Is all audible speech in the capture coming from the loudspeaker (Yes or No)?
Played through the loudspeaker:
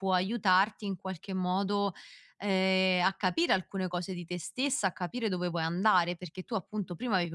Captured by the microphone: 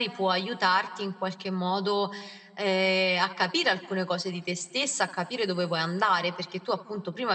Yes